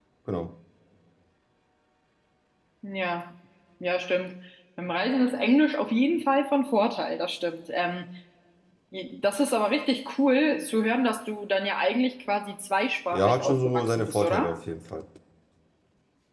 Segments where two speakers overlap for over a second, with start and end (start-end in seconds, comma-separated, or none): 13.1-14.6